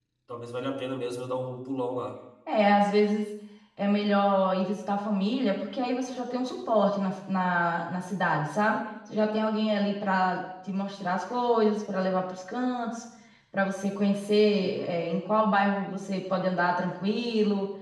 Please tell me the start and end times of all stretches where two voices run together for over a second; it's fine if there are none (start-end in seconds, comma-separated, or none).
none